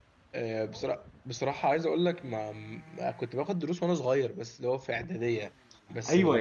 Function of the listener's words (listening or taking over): taking over